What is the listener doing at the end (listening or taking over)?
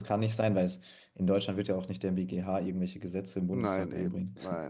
taking over